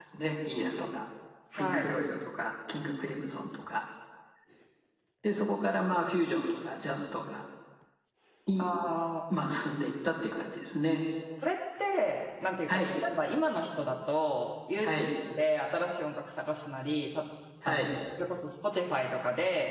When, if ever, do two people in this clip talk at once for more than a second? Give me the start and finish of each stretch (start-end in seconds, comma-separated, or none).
none